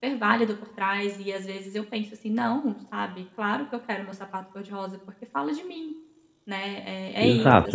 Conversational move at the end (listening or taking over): taking over